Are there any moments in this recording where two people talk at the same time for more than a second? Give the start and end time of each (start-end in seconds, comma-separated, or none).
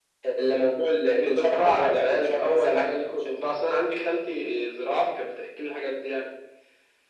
1.2-3.2